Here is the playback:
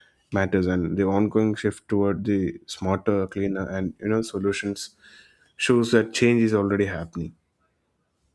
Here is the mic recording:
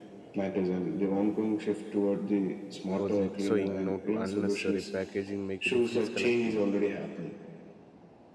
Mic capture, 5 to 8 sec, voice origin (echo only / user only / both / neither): both